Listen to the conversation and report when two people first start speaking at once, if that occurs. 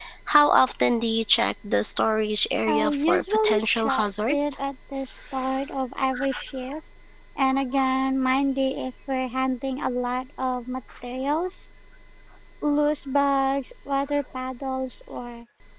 2.7 s

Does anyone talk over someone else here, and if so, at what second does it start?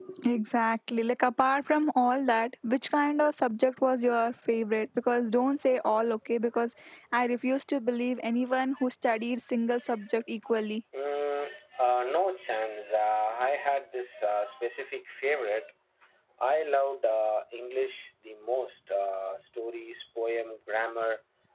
none

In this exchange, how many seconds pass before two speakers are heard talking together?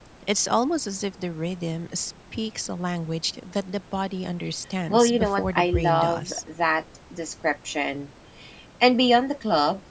4.9 s

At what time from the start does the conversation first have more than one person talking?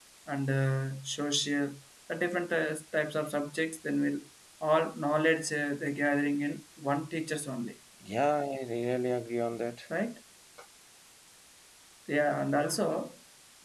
none

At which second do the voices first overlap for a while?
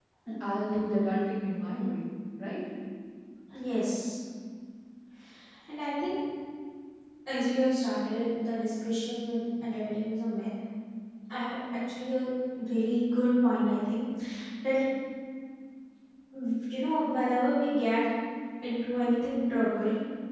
none

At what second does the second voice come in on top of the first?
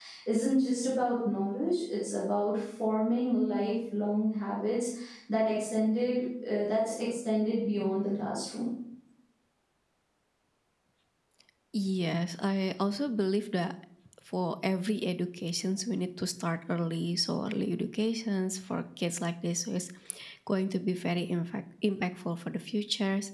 none

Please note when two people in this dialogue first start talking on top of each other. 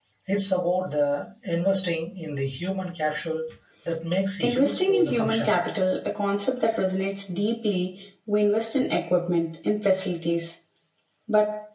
4.4 s

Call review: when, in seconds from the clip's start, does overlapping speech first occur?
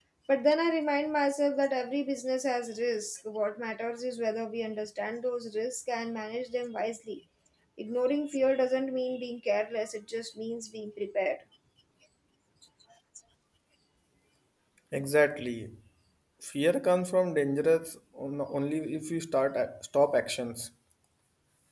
none

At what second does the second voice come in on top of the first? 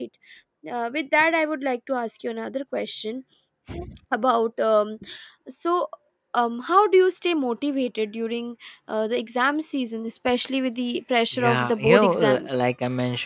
11.3 s

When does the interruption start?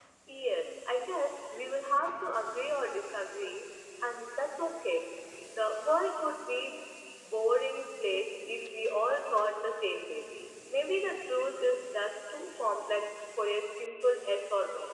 none

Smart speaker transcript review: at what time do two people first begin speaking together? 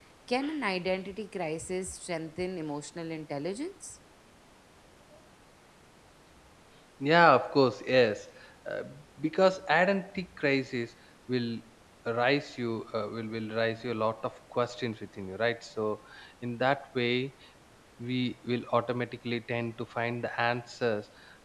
none

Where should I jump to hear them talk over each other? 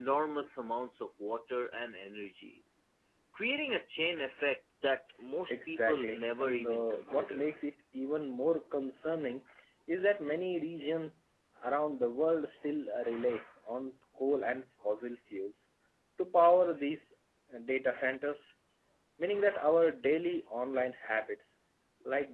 5.5 s

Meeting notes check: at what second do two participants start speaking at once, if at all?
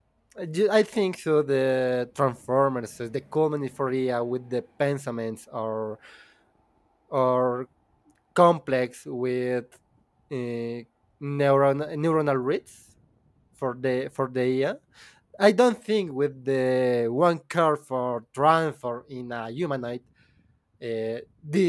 none

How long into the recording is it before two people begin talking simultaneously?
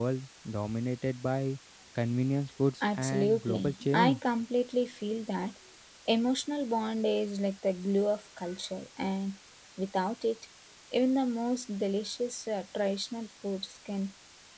2.8 s

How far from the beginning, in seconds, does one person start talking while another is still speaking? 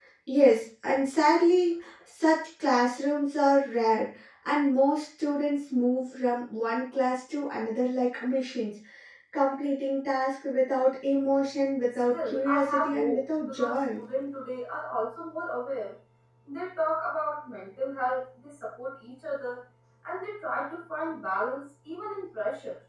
11.9 s

